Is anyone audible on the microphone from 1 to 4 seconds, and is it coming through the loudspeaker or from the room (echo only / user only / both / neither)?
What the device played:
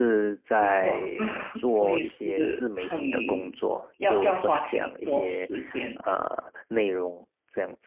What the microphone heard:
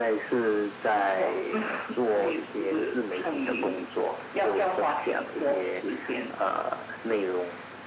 echo only